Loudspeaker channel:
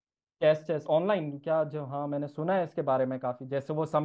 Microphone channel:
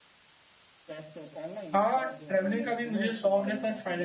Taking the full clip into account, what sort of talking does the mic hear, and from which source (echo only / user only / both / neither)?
both